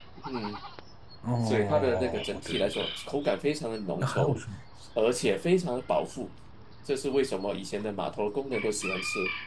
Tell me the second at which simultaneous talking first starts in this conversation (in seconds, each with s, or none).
1.4 s